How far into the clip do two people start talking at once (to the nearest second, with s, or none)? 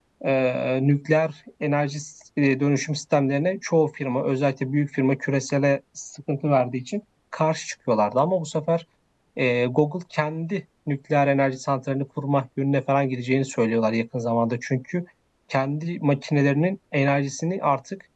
none